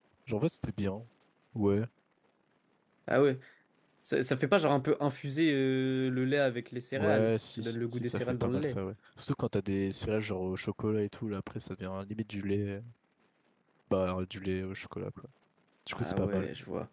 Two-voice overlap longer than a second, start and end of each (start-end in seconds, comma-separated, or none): 6.9-8.8